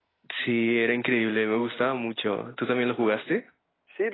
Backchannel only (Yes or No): No